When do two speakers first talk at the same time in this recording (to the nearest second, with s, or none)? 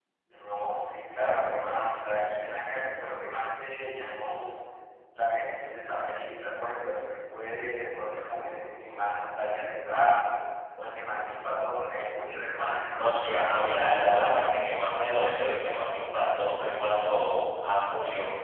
13 s